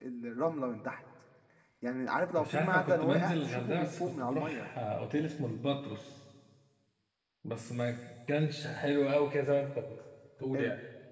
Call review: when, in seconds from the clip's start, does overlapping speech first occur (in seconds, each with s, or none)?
2.4 s